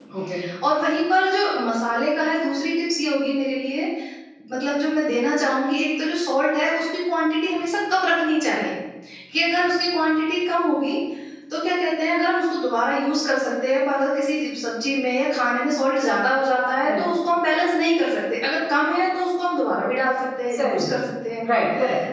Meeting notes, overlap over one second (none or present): none